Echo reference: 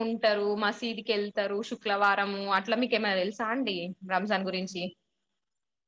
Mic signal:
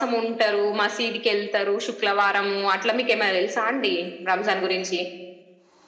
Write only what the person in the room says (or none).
none